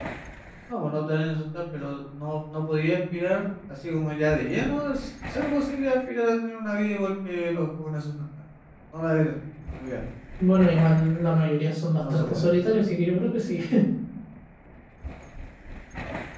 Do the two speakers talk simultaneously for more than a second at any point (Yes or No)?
No